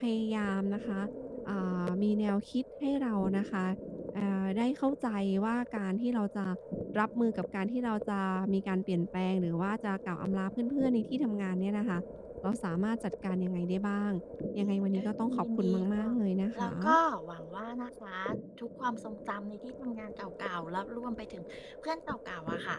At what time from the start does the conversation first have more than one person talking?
14.6 s

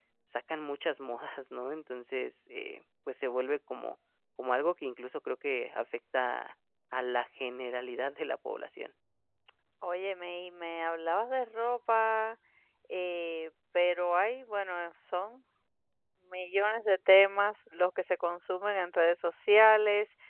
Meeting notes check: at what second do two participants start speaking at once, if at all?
none

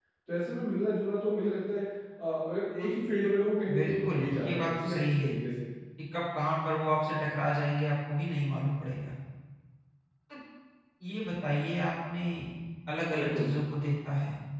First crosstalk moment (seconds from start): 3.7 s

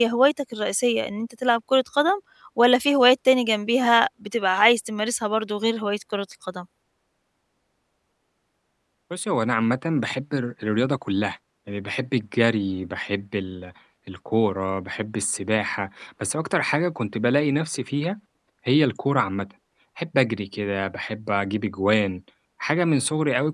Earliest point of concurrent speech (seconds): none

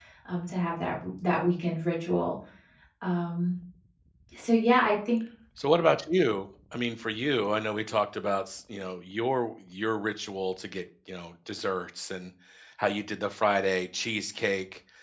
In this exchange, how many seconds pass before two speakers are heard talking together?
none

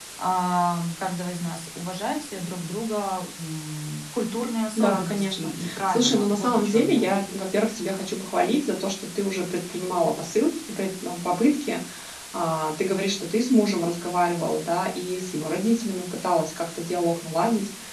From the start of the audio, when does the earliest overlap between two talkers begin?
4.8 s

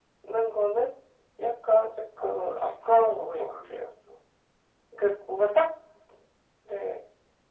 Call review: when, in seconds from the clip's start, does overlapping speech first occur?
2.2 s

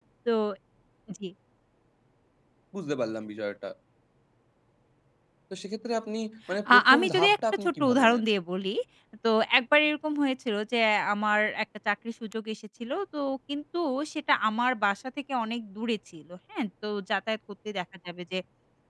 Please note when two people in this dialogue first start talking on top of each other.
6.7 s

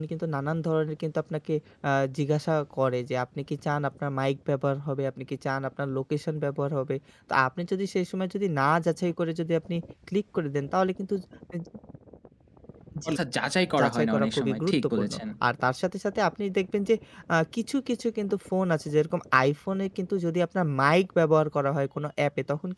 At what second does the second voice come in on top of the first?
13.8 s

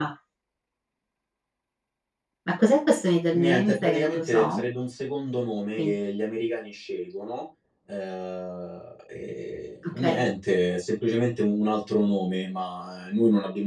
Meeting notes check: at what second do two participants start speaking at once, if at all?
3.3 s

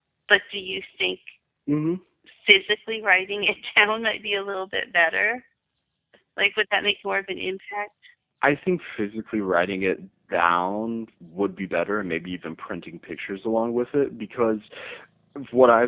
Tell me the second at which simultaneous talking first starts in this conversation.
none

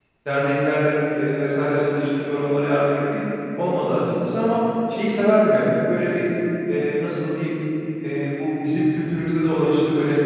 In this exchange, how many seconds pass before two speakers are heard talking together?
none

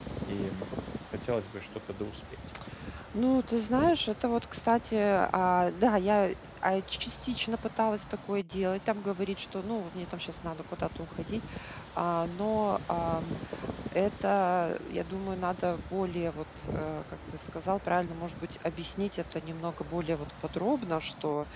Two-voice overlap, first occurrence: none

